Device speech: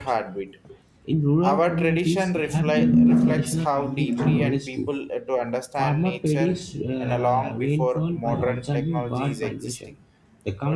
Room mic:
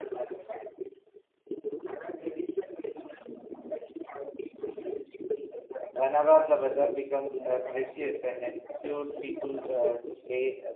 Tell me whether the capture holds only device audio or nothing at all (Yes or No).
No